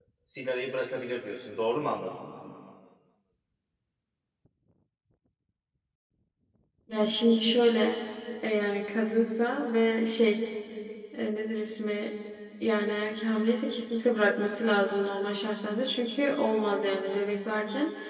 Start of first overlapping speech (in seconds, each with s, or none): none